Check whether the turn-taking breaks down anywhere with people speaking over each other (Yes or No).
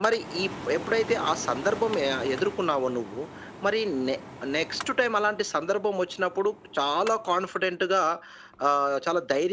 No